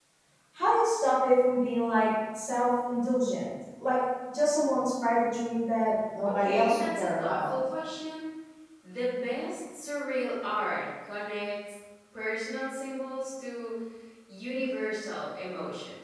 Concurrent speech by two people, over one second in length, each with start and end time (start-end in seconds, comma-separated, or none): 6.2-7.6